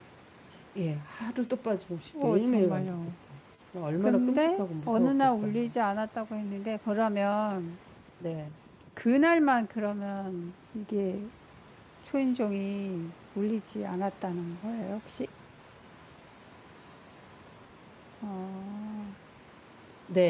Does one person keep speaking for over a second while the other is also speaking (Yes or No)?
Yes